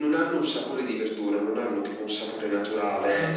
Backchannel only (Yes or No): Yes